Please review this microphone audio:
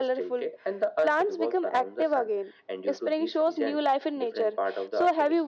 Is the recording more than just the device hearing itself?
No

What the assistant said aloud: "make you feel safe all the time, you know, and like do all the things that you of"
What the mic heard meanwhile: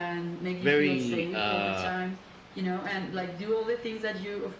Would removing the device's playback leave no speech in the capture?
No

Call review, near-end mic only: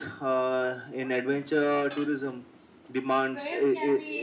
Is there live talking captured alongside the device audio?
Yes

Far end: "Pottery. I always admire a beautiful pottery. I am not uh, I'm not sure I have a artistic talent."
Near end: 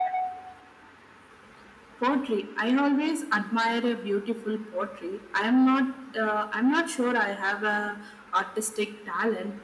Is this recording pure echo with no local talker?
Yes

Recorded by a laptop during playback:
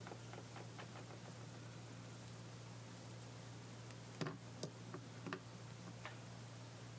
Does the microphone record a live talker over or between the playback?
No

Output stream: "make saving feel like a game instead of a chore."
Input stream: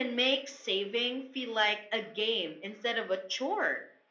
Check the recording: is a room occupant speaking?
No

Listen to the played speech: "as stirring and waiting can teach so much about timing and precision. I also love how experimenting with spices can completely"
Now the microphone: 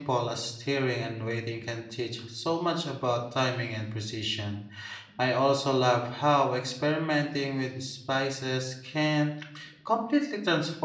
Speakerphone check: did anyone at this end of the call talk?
No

